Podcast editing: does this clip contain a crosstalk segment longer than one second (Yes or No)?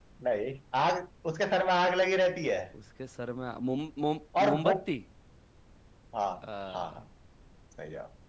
No